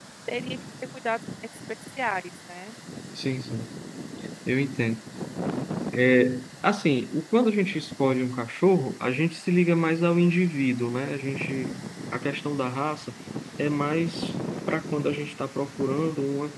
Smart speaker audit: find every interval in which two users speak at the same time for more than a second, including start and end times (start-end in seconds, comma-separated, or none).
none